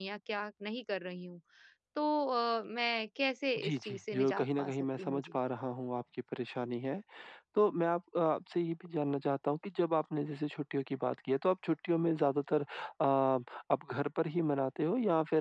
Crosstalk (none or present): present